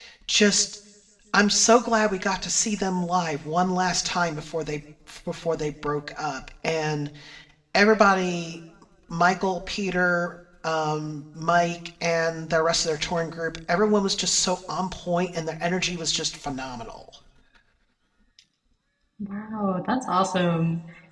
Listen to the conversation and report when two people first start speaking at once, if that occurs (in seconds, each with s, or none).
none